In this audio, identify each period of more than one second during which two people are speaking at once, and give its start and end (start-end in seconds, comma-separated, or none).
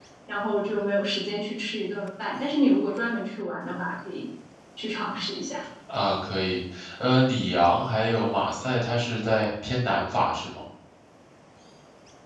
none